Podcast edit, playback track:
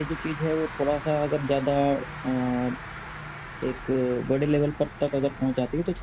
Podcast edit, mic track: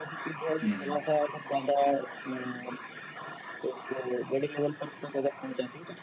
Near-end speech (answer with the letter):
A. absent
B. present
B